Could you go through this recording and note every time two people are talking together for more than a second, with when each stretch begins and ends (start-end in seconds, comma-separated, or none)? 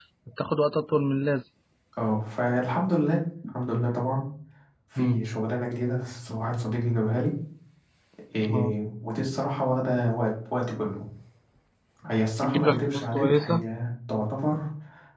12.4-13.6